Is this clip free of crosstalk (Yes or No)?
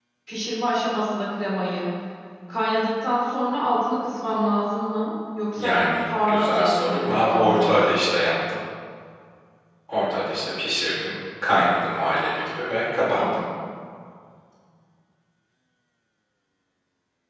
No